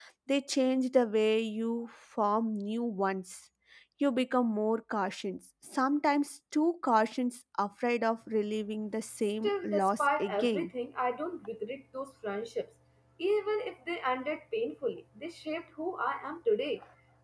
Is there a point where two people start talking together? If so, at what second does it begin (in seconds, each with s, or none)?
9.4 s